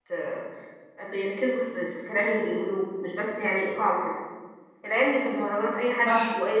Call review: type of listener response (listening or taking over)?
listening